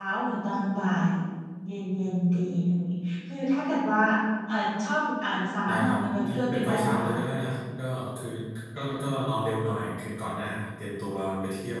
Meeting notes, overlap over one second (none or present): present